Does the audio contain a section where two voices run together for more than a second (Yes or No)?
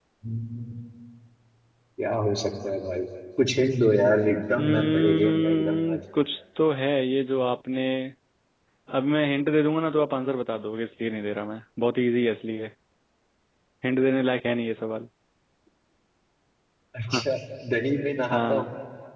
Yes